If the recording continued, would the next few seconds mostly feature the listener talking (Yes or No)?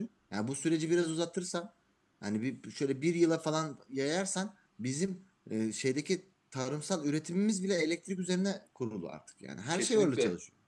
Yes